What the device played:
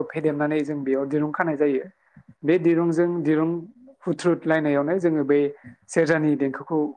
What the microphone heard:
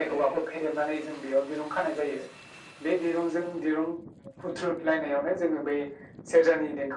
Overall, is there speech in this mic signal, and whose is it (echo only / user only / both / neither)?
echo only